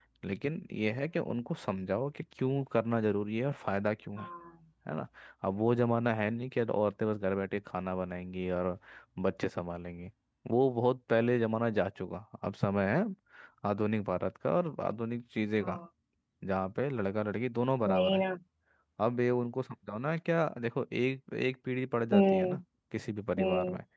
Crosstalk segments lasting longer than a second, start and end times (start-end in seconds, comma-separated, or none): none